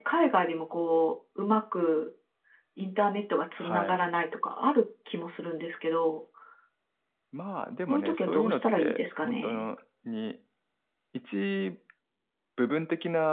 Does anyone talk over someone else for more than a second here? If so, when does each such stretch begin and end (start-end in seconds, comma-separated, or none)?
7.9-9.7